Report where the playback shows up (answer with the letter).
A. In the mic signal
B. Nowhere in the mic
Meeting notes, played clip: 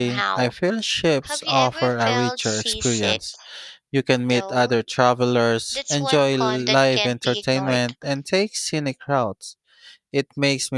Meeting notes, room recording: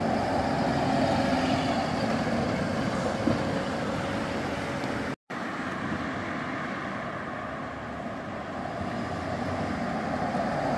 B